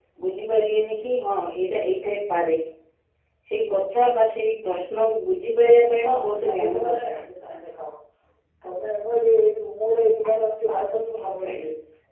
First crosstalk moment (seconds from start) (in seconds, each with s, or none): 5.9 s